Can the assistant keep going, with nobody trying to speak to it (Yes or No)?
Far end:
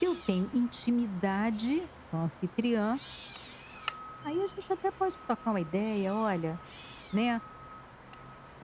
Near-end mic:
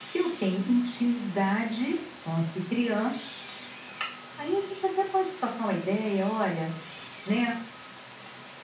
Yes